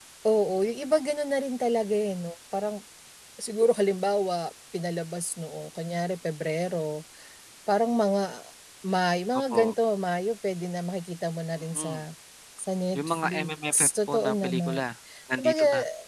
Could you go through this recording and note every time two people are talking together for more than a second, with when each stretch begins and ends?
13.0-14.8

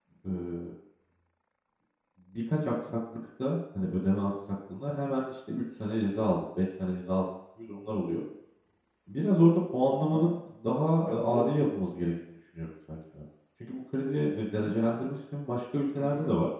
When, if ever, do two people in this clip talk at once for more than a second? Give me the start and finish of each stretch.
none

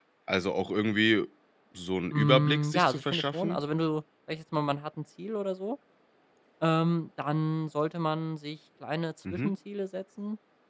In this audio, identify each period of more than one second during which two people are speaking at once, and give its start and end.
2.1-3.6

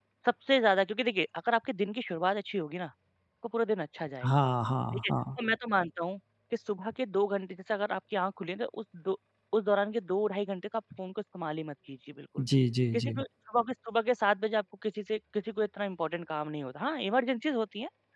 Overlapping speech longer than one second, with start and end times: none

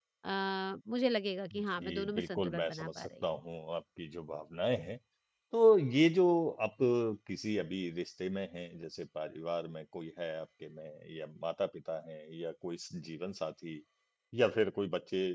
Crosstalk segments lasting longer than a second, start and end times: 1.5-3.2

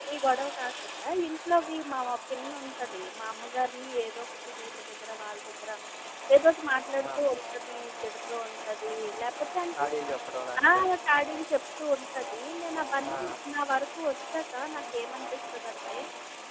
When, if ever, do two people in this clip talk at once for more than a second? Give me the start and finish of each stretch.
none

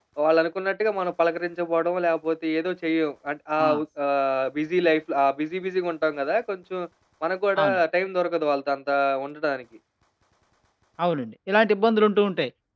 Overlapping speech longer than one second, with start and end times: none

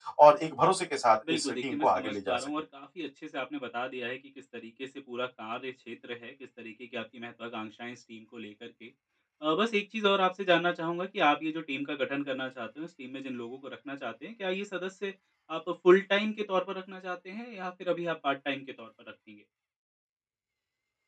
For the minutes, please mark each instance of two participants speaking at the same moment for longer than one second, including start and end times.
1.3-2.5

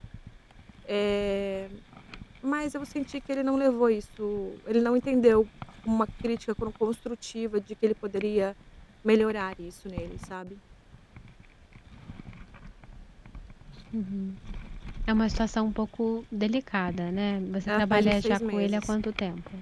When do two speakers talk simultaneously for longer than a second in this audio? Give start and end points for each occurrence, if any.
17.7-18.9

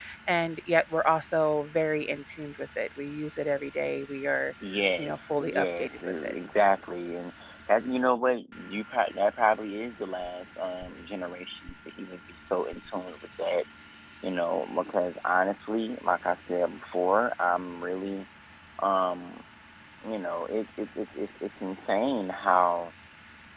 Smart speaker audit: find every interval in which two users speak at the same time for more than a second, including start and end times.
5.0-6.3

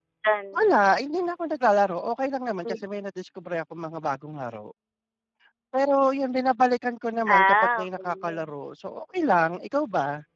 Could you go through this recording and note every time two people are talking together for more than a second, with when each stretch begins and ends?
7.3-8.5

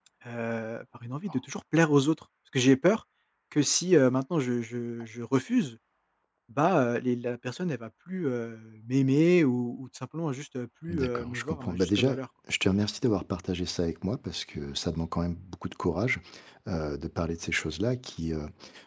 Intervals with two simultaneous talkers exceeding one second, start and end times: 10.9-12.2

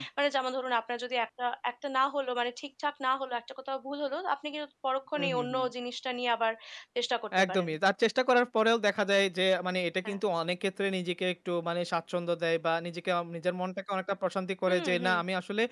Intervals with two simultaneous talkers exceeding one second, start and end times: none

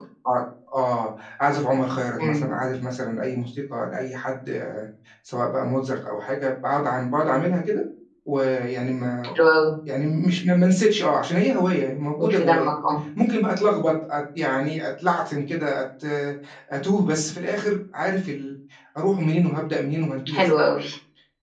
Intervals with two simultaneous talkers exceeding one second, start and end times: none

